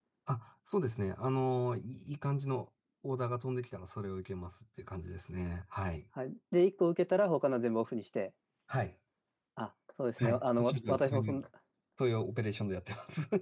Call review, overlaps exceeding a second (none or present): present